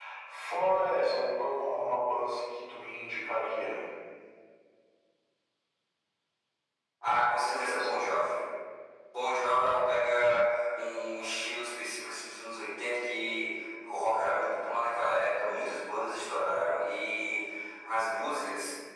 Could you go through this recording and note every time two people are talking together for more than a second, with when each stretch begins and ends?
none

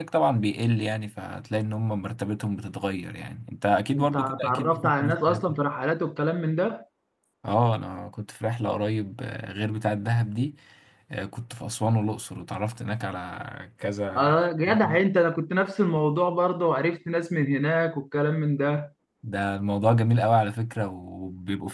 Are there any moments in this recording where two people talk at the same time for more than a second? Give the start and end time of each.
4.0-5.5

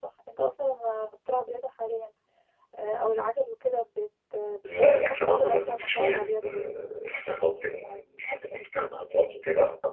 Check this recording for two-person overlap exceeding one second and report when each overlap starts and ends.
4.6-6.6

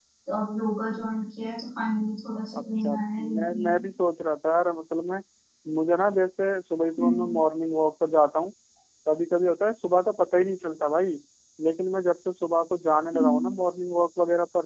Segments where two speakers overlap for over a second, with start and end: 2.6-3.8

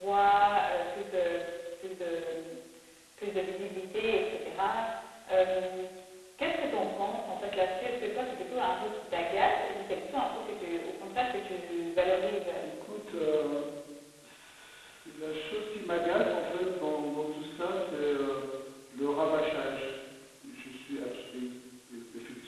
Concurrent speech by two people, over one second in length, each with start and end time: none

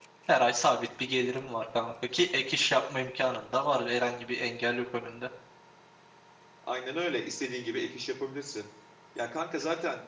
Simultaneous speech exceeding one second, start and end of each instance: none

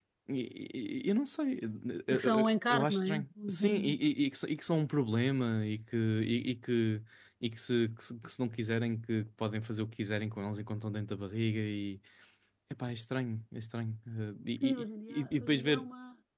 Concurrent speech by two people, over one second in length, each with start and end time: 2.1-4.0, 14.6-15.8

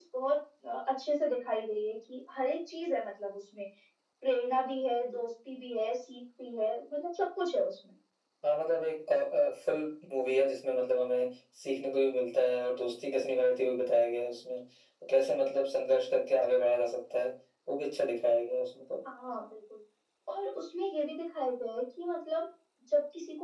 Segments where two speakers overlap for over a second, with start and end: none

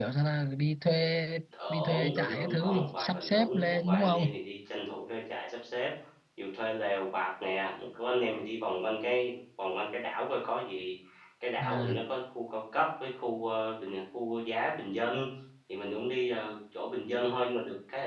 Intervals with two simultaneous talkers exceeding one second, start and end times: 1.7-4.4

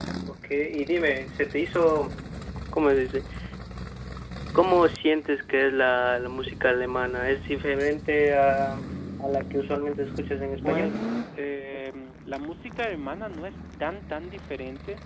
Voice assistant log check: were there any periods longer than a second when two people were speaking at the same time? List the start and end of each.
none

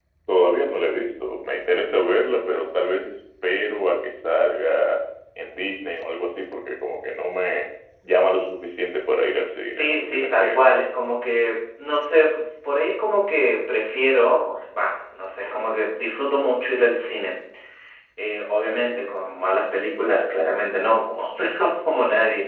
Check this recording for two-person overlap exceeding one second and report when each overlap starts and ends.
9.6-10.8

